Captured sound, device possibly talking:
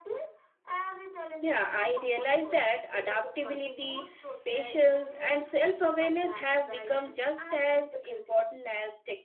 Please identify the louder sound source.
user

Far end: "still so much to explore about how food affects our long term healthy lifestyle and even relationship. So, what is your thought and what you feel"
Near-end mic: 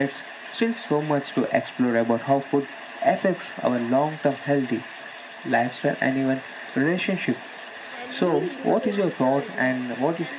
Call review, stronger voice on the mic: echo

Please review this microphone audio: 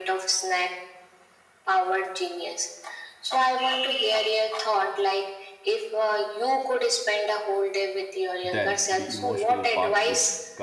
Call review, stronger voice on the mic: echo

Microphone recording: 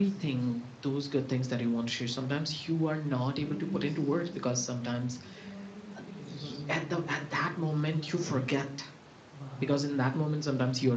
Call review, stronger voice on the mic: echo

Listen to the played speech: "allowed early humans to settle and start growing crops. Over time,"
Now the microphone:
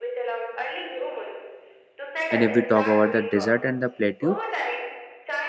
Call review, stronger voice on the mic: user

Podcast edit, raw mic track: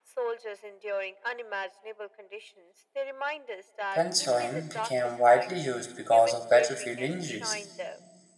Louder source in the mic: user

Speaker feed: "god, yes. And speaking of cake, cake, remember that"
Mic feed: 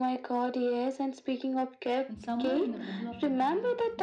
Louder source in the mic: echo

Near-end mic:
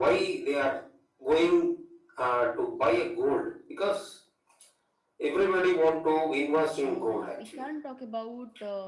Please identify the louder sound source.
echo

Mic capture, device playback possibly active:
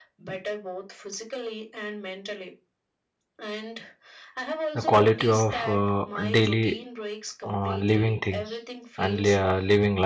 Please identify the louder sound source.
user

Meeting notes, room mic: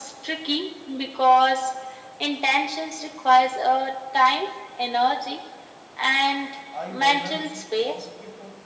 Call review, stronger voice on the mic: echo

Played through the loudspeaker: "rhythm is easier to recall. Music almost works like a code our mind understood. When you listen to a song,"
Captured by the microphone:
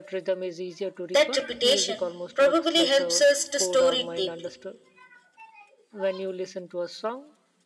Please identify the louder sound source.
user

